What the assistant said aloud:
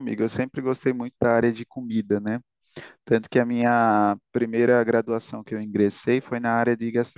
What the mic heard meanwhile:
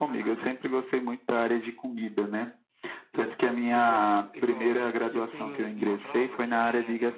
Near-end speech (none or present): present